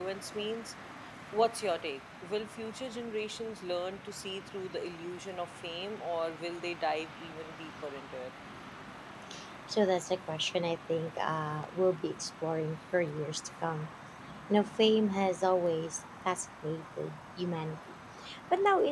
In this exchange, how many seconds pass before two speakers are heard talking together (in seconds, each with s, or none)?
none